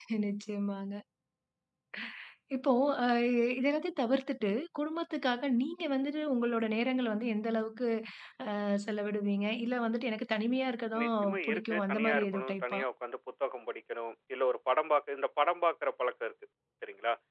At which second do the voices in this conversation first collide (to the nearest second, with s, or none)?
11 s